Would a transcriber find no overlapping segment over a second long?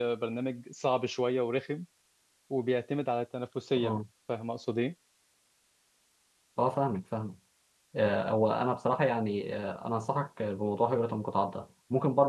Yes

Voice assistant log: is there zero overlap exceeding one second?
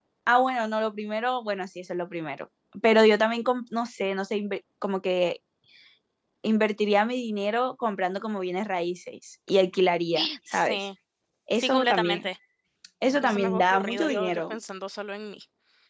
No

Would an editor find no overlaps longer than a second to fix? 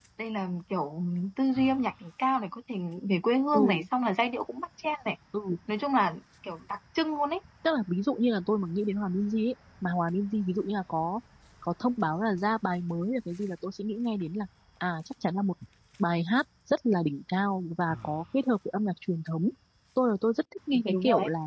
Yes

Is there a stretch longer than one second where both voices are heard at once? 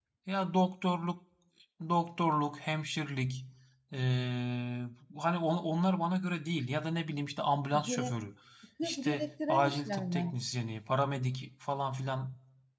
Yes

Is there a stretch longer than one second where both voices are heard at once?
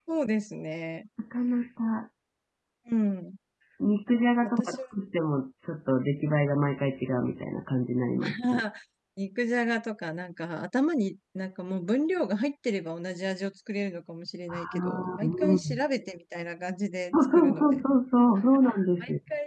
Yes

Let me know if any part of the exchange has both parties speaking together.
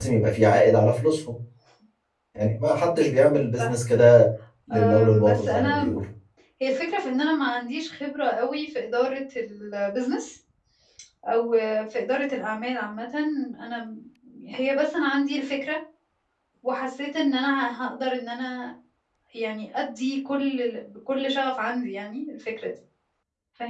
Yes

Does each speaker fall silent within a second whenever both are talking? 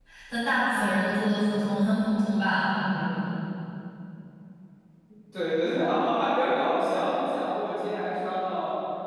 Yes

